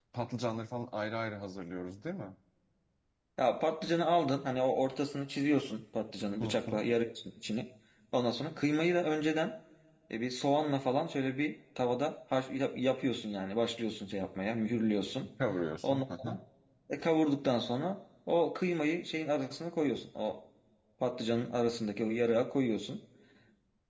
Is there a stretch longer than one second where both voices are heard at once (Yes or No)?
No